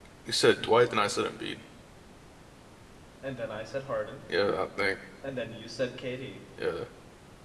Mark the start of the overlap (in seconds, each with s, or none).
none